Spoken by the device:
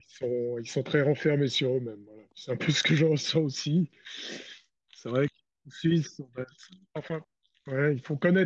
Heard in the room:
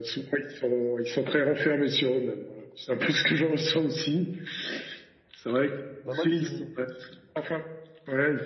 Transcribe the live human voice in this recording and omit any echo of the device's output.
Bah moi qui...

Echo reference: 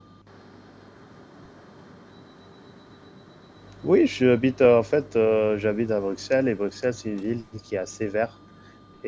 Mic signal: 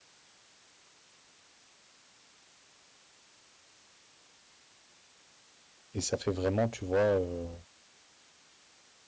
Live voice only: et ça fait vraiment, tu vois, euh,

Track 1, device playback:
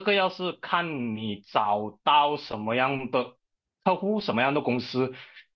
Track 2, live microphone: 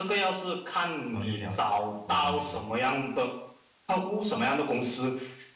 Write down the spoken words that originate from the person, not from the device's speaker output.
然后又了解韩国公司，

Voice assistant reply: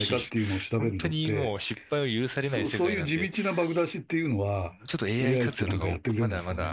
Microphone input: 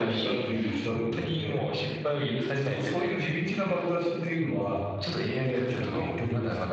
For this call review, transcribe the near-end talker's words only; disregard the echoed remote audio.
none

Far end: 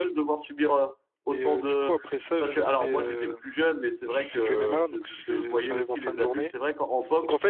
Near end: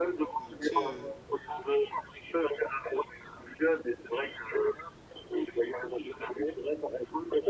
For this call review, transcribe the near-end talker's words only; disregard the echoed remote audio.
Euh, tu sais, euh,

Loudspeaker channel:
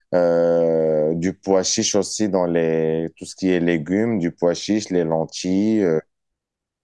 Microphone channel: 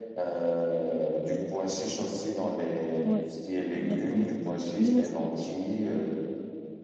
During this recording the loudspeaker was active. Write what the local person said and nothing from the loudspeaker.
Ouais, exactement. Nous aussi,

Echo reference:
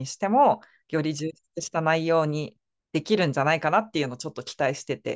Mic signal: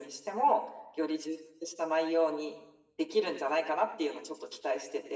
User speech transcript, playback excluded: none

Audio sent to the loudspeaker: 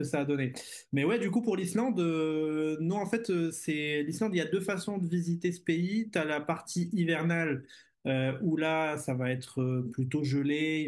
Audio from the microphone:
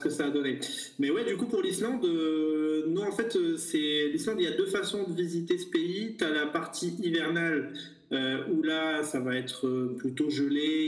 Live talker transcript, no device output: none

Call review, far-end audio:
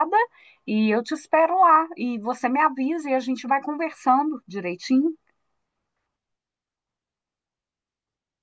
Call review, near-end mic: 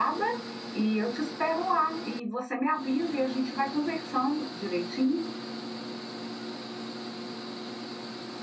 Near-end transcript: none

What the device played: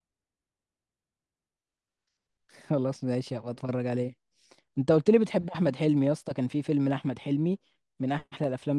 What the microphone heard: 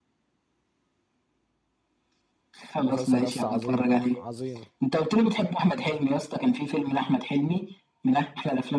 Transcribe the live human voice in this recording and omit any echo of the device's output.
مسلسل يس عظيم عظيم

